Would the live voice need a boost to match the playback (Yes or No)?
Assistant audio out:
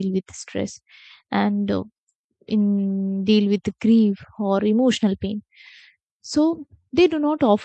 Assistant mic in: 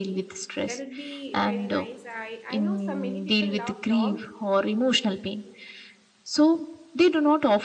Yes